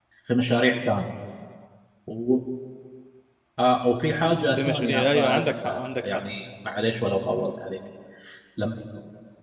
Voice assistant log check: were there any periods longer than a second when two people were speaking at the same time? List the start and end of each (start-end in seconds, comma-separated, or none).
4.6-6.2